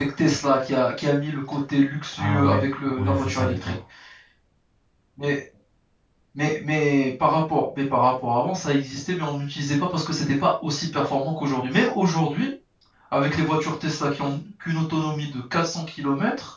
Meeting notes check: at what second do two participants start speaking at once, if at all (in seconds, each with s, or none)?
2.1 s